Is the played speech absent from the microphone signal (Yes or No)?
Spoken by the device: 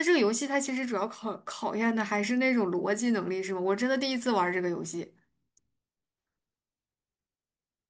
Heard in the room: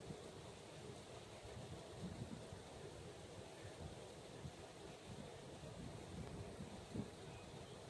Yes